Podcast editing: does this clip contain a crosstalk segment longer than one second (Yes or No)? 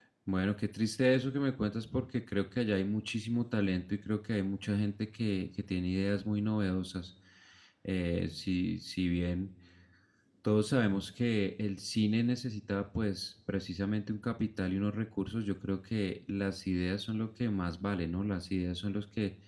No